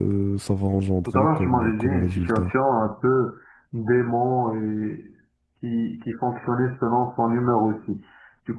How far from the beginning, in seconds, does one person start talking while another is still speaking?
1.1 s

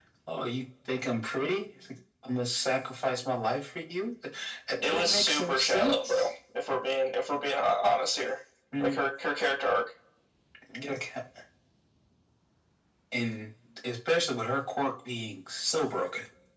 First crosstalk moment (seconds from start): 4.8 s

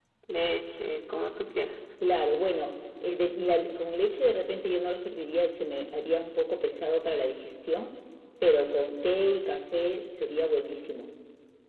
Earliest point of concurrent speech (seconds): none

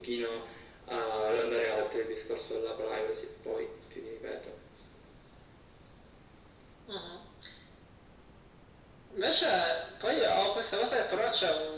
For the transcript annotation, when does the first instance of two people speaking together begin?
none

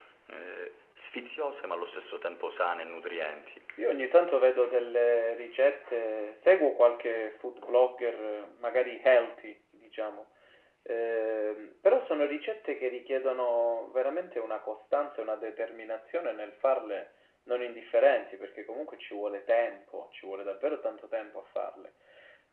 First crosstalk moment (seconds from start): none

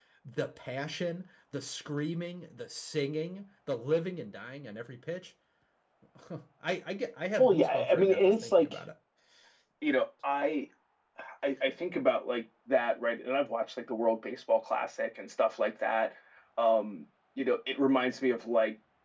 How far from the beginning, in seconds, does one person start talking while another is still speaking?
7.4 s

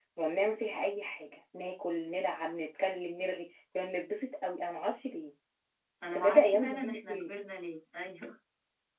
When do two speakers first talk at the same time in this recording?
6.0 s

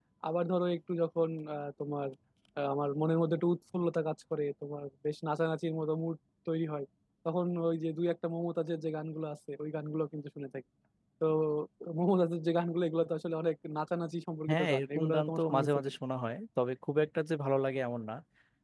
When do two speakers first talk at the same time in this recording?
14.5 s

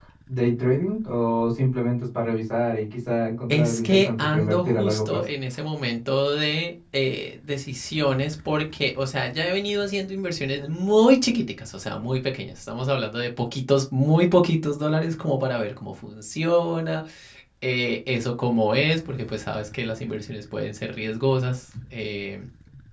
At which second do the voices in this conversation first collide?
3.5 s

